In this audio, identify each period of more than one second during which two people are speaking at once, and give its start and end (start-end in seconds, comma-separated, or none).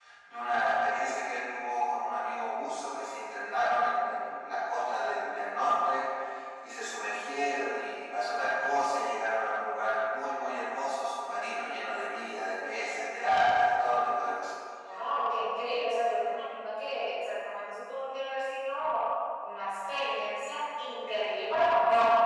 none